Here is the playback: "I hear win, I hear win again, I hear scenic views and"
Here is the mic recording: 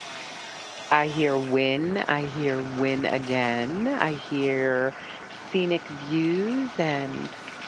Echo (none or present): present